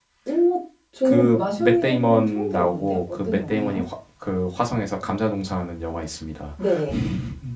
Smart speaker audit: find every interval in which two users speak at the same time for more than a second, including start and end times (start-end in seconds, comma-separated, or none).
1.1-3.8